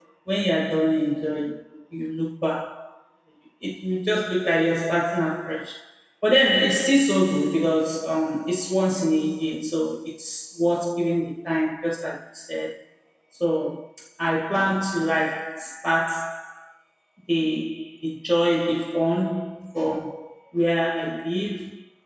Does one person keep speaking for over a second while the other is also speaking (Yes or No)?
No